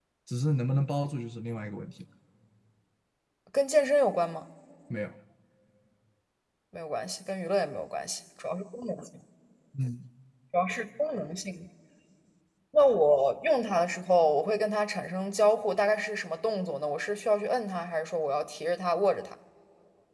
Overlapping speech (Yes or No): No